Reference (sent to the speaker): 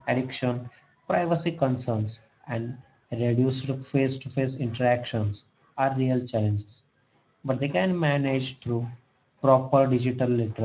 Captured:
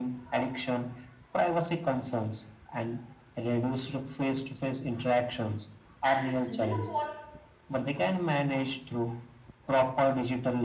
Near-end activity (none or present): present